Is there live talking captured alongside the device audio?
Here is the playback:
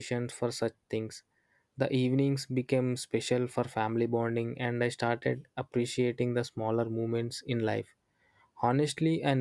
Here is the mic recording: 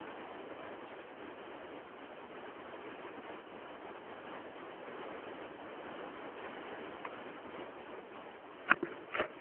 No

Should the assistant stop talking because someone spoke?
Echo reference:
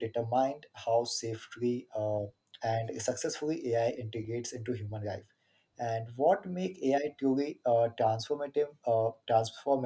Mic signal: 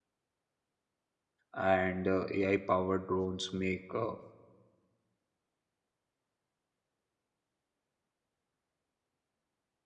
Yes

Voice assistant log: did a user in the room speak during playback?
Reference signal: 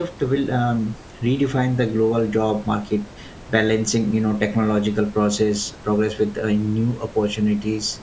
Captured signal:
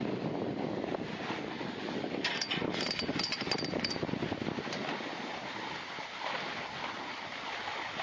No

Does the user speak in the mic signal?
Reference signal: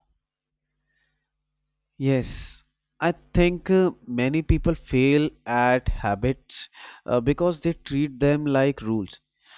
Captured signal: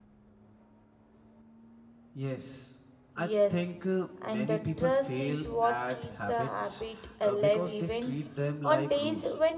Yes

